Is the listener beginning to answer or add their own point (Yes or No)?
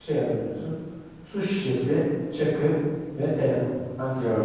Yes